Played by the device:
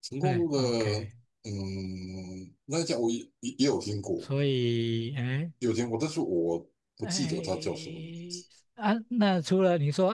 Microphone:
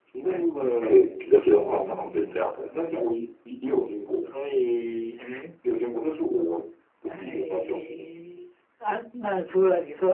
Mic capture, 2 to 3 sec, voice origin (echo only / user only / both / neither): both